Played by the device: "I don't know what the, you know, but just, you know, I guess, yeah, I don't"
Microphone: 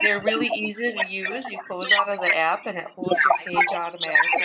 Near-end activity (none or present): present